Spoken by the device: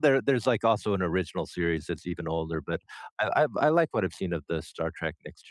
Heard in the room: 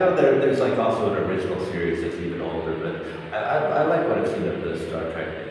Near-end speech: none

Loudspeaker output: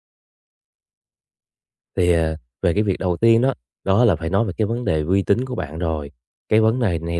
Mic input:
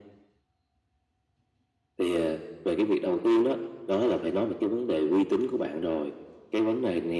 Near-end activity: none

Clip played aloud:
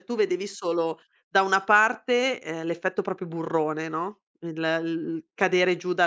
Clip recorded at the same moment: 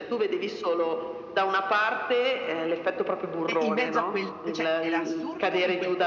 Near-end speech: present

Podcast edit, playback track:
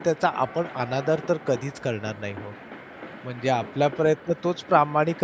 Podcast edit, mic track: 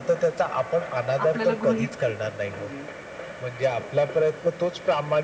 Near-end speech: present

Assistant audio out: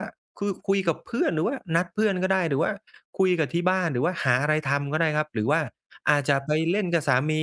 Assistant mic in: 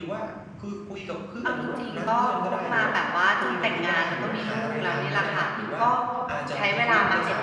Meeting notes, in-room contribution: present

